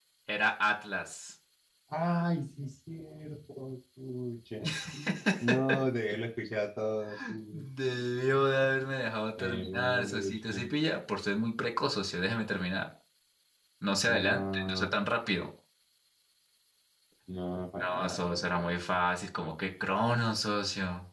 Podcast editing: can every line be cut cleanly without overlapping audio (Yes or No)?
No